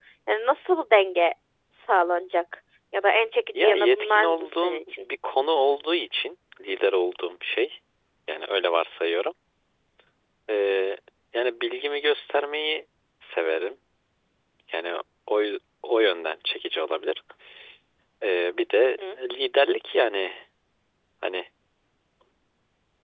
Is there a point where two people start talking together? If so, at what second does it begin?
4 s

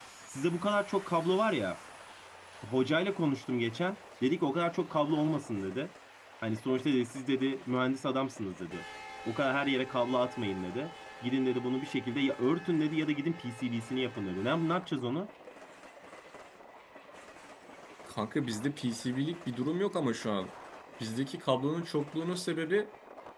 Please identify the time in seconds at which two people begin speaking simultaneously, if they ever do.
none

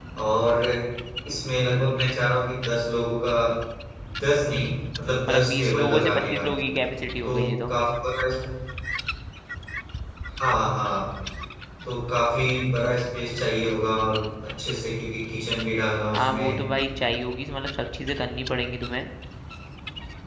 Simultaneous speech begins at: 5 s

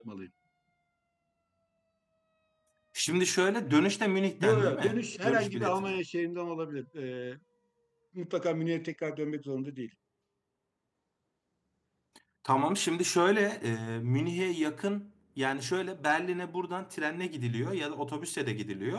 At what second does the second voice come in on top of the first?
4 s

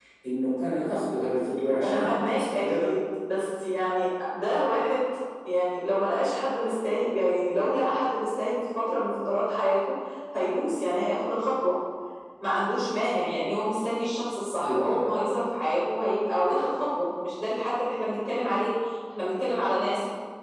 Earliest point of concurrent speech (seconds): 2 s

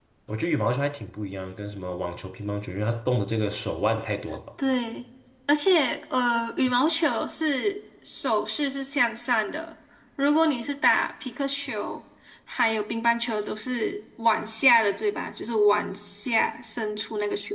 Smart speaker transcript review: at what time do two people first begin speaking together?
none

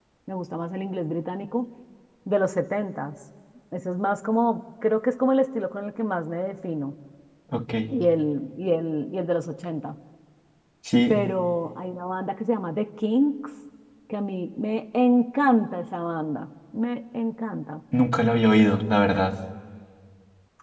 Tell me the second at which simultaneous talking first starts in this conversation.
none

